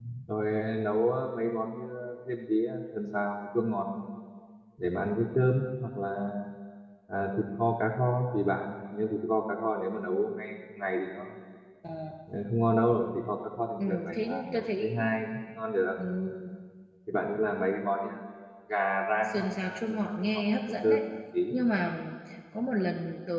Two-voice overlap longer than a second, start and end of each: 13.8-15.1, 19.2-21.0

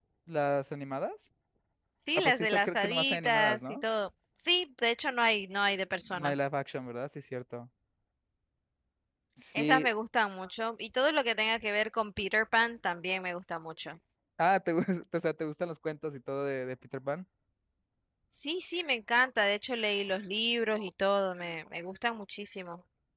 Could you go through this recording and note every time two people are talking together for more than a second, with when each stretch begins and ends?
2.2-3.8

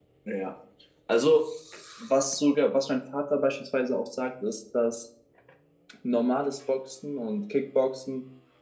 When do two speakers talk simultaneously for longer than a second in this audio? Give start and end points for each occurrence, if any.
none

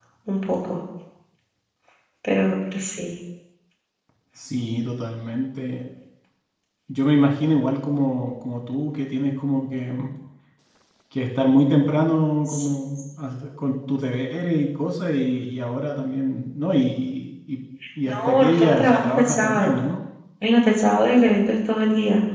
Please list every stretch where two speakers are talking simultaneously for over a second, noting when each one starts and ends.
18.1-19.8

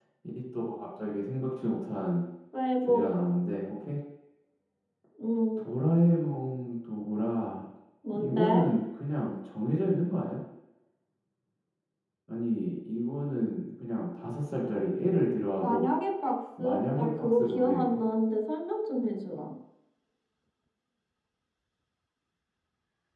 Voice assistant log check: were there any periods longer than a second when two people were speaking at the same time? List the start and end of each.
16.6-18.0

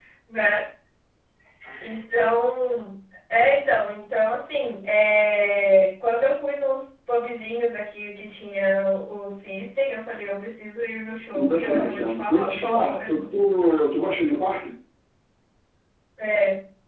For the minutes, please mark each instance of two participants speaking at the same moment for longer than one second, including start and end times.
11.3-13.4

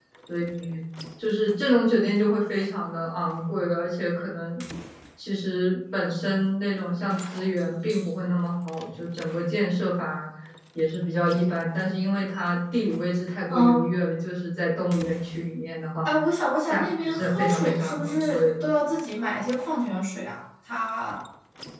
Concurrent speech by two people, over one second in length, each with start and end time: 16.7-18.7

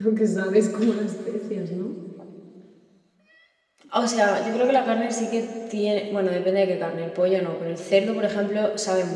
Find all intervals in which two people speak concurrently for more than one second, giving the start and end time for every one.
none

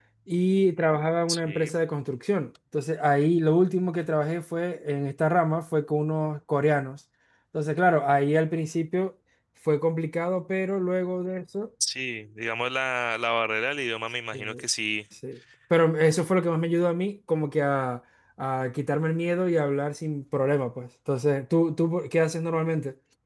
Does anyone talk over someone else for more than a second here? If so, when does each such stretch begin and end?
none

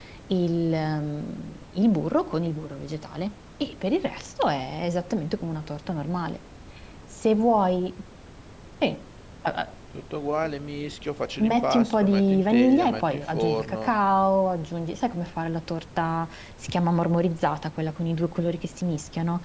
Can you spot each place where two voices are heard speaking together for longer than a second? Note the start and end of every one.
11.4-13.9

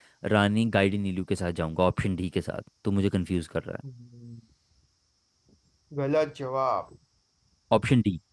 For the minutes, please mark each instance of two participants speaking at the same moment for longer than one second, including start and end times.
none

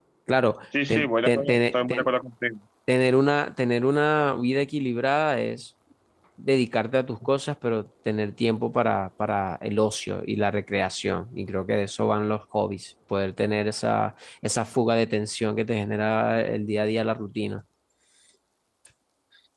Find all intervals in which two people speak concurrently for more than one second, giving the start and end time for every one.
0.9-2.1

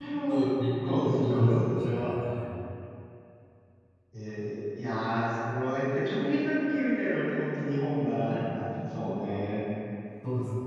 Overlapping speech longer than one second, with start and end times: 0.8-2.1

